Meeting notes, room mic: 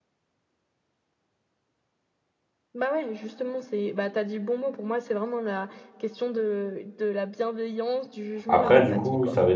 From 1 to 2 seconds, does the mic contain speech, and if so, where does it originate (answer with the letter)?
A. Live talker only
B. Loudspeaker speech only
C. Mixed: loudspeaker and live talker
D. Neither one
D